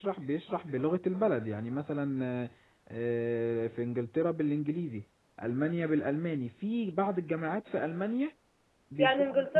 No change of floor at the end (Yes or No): No